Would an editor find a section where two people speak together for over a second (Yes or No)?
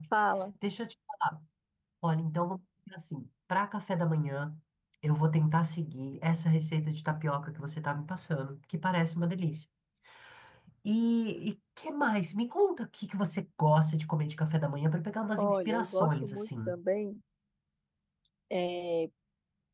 Yes